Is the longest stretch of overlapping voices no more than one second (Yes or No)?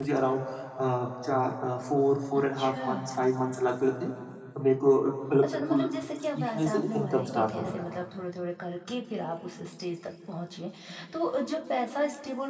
No